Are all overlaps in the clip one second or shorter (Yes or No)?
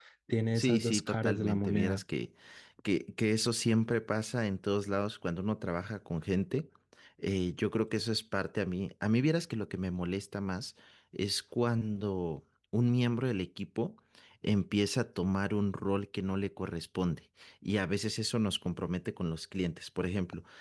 No